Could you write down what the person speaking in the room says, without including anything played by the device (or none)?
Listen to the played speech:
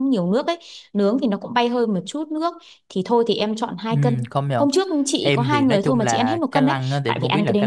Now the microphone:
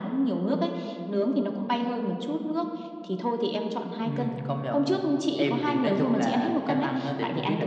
none